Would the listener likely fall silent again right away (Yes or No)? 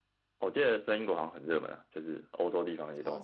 No